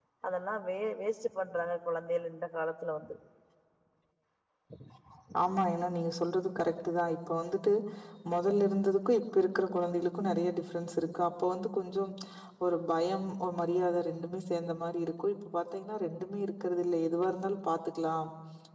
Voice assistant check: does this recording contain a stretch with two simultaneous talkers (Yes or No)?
No